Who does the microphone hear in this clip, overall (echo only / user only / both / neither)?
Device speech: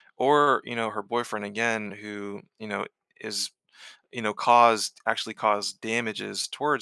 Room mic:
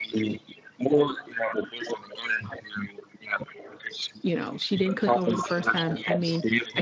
both